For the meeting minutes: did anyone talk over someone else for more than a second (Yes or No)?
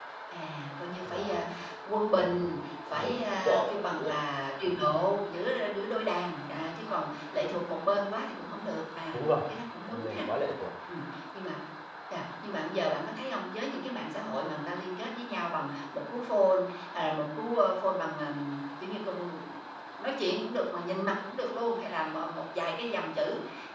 Yes